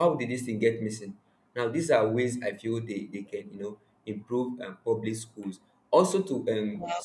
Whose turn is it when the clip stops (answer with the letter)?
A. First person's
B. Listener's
A